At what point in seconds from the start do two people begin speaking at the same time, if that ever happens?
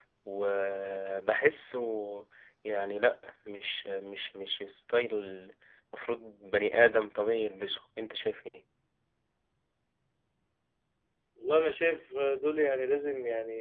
none

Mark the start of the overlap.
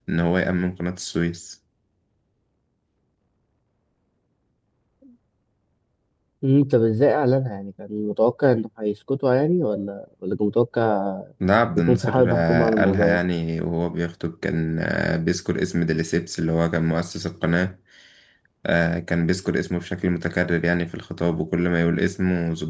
11.8 s

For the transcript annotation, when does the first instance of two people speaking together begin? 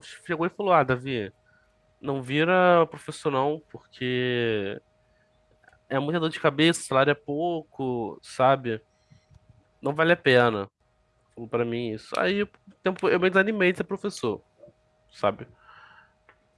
none

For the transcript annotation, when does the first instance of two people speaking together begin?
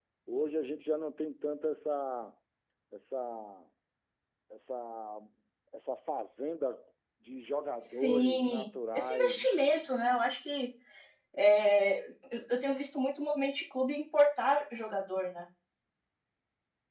7.8 s

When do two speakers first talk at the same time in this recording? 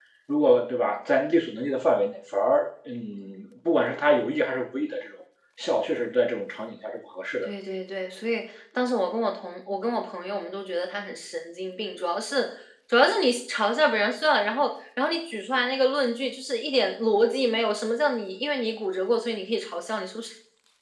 none

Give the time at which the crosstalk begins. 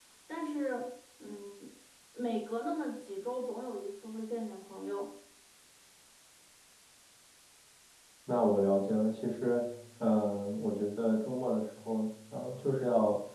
none

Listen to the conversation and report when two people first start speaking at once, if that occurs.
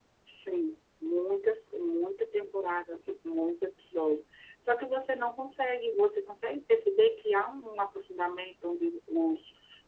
none

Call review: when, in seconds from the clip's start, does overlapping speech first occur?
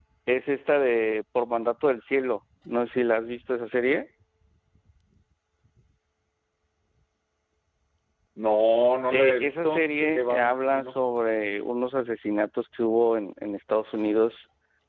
9.1 s

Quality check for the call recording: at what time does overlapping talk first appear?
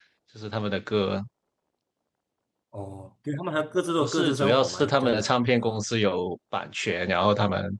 4.0 s

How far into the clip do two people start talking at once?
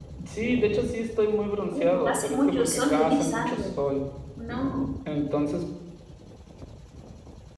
1.7 s

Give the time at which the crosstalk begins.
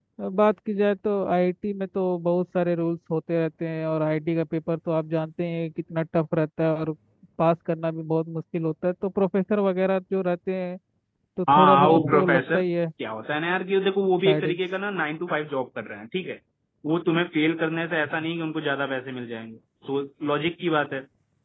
11.5 s

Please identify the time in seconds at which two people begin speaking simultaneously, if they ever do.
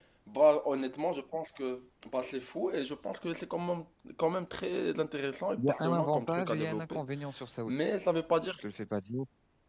5.6 s

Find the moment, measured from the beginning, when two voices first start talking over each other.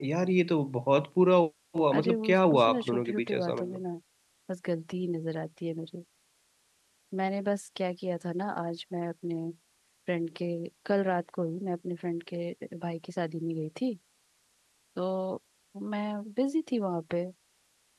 1.9 s

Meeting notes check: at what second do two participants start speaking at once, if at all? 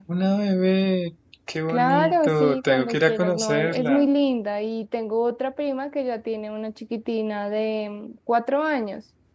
1.7 s

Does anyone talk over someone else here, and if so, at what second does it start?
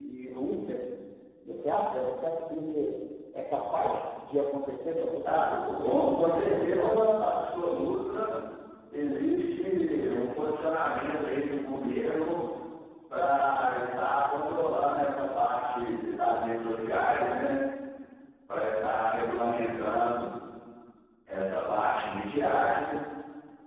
5.2 s

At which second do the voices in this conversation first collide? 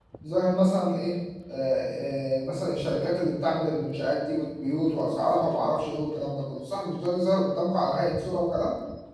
none

